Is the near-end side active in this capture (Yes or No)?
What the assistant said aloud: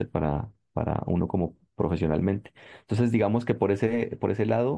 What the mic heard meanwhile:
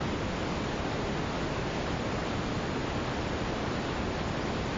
No